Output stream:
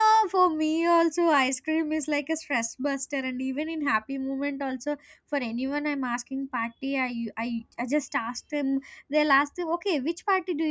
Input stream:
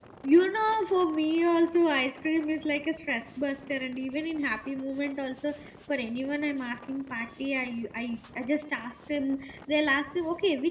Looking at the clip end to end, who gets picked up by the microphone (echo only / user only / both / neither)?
echo only